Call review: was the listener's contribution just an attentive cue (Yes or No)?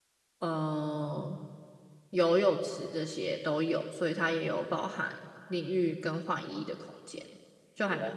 No